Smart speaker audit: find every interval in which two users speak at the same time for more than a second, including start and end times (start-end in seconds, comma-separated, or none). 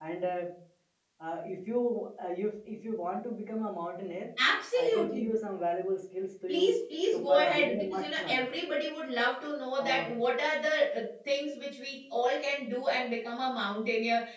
7.1-8.4